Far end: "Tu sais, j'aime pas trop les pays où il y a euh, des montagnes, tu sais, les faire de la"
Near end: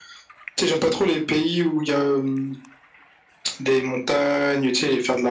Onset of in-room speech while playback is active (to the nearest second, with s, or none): none